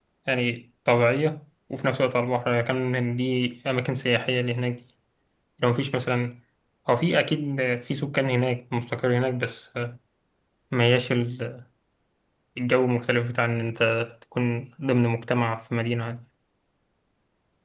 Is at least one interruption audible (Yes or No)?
No